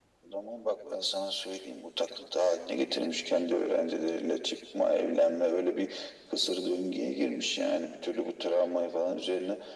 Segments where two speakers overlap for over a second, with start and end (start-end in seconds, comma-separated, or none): none